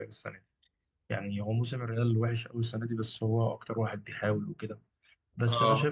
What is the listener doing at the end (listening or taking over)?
listening